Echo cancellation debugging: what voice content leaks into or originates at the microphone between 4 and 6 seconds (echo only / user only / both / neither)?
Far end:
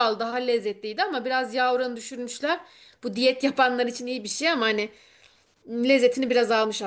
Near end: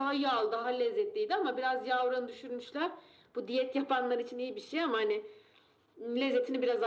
echo only